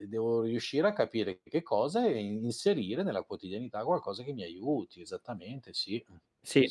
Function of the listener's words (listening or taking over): taking over